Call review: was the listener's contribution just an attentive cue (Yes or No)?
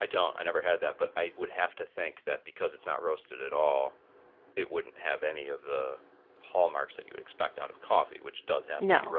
Yes